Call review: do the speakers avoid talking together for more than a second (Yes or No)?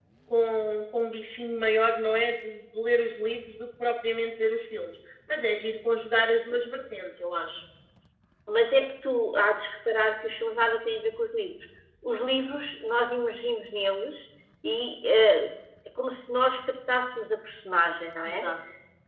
Yes